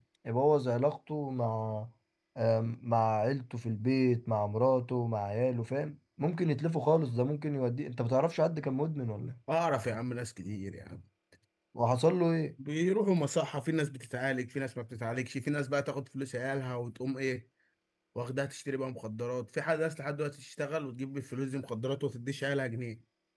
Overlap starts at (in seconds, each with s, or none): none